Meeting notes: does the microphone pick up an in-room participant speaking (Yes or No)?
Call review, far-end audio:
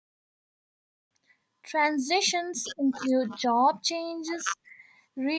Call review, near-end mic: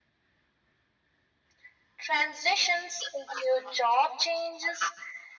No